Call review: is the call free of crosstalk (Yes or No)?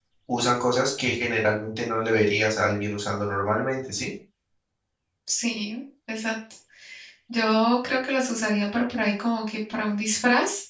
Yes